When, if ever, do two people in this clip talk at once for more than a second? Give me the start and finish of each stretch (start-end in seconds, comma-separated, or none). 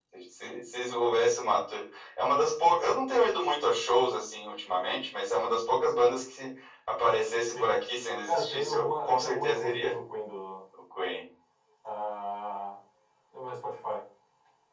8.2-9.9